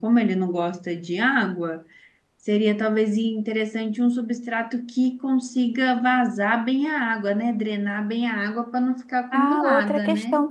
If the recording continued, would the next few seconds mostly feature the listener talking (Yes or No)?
Yes